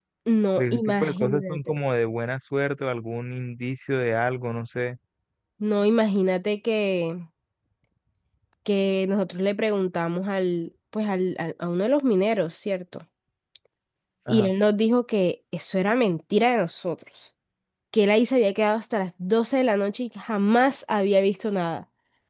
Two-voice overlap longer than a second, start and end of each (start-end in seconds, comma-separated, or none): 0.6-1.8